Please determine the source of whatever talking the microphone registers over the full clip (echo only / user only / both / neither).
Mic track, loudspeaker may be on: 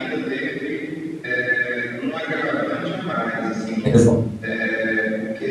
both